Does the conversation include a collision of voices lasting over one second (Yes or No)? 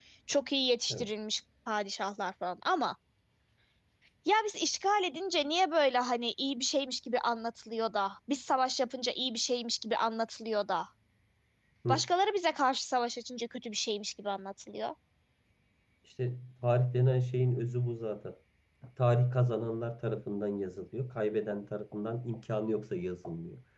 No